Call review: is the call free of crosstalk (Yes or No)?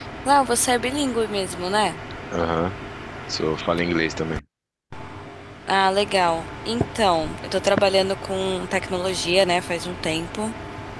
Yes